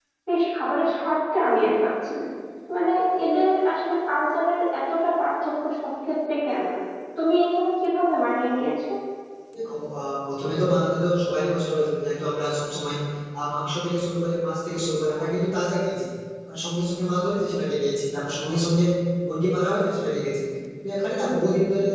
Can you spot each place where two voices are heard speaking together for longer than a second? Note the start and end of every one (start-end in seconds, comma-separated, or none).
none